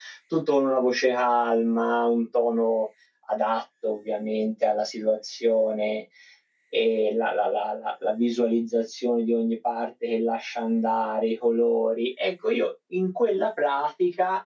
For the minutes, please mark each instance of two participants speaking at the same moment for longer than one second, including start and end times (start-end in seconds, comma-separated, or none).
none